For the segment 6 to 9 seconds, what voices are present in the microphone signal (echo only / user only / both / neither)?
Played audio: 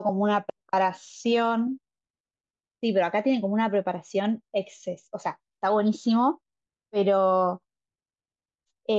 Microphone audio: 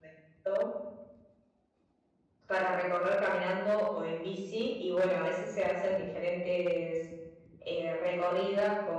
user only